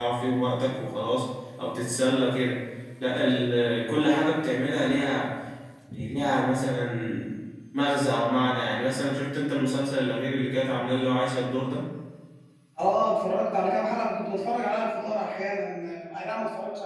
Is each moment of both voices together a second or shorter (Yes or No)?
Yes